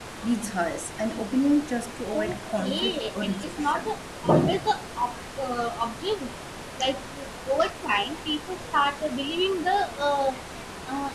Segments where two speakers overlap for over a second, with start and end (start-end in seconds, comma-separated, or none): 2.1-3.9